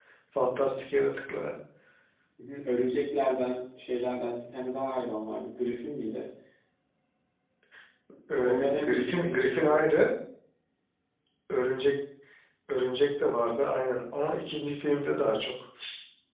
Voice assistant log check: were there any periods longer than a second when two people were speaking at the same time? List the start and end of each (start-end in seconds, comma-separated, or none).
8.4-9.8